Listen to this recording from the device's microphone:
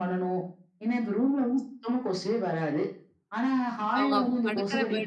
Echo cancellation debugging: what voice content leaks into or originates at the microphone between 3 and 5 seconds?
both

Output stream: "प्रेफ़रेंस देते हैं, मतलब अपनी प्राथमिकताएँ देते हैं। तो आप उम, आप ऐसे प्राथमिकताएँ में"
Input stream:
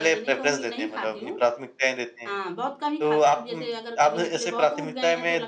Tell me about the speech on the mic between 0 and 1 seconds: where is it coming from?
both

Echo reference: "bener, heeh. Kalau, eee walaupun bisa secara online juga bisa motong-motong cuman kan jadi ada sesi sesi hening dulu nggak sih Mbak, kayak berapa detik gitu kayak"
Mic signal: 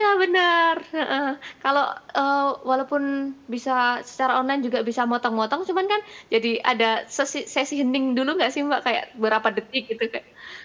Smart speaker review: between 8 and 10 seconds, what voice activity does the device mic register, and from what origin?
echo only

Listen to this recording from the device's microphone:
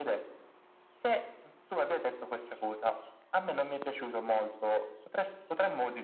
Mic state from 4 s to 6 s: echo only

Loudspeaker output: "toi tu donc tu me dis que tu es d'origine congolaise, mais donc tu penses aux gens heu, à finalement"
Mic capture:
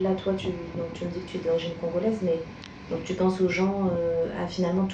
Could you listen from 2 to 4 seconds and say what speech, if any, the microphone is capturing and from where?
echo only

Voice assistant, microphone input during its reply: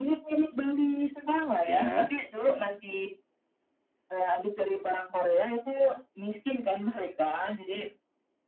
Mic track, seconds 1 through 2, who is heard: both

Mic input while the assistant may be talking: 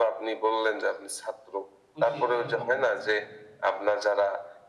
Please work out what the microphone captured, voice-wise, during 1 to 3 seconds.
both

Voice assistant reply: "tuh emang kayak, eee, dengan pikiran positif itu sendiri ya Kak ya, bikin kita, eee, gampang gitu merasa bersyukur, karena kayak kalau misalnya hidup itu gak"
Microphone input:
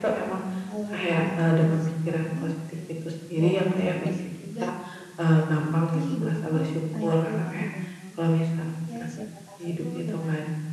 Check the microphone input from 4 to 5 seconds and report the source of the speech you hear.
both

